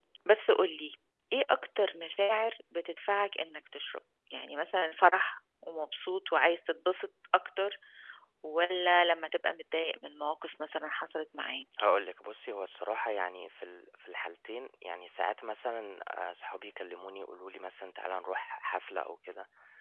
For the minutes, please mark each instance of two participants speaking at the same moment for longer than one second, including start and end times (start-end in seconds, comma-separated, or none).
none